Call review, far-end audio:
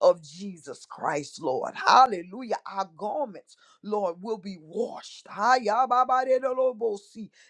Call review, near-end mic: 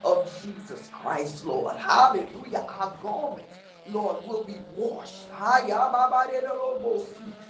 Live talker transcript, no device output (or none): none